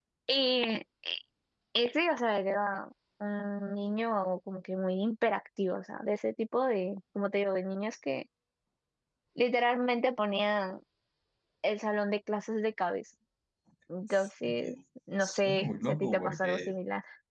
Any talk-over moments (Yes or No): Yes